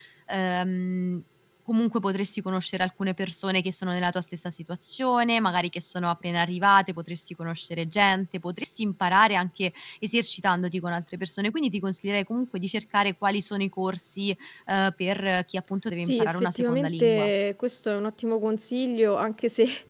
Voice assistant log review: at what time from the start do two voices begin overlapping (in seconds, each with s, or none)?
16.0 s